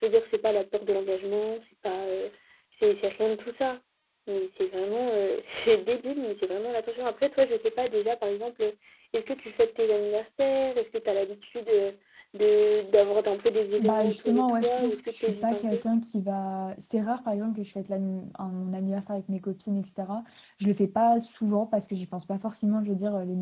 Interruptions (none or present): present